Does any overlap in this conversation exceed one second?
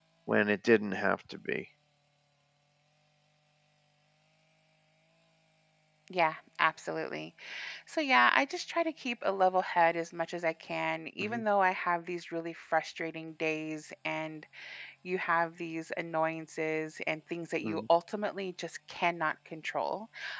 No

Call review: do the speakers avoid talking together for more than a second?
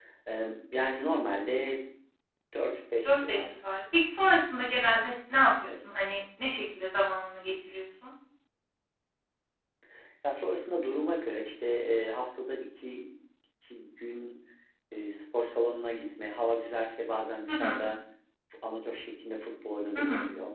Yes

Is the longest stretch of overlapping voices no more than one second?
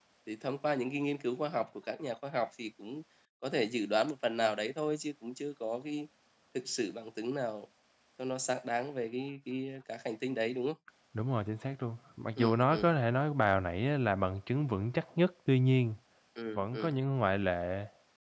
Yes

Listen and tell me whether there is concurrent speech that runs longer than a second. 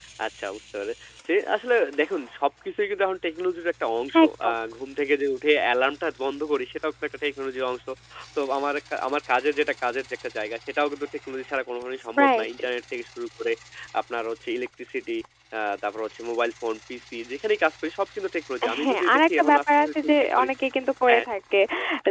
Yes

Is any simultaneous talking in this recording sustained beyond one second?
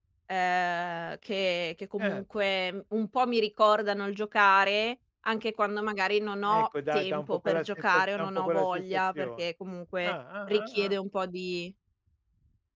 Yes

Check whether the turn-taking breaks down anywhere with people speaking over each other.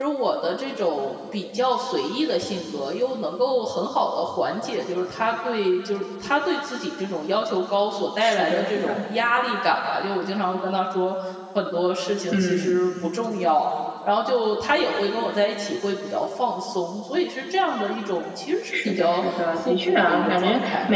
Yes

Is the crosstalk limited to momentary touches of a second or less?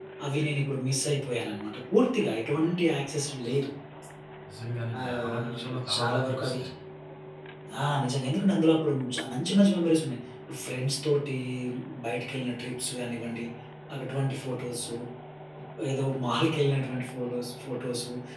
No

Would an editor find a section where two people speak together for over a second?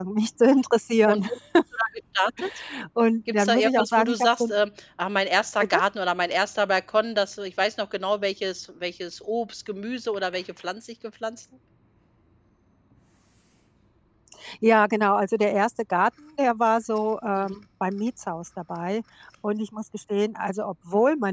Yes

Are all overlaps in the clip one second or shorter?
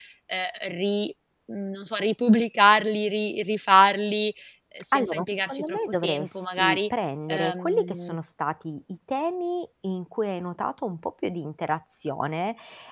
No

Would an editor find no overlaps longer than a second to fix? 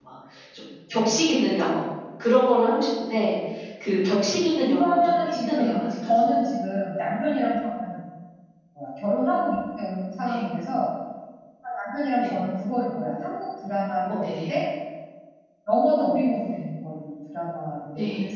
No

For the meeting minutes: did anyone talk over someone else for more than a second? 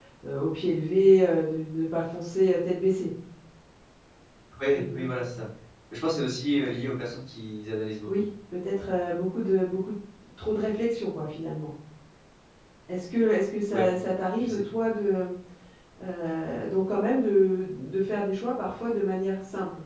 No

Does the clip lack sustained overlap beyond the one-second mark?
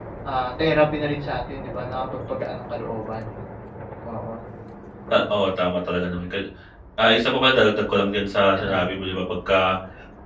Yes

